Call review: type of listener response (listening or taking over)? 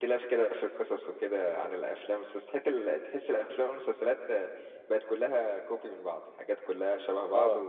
listening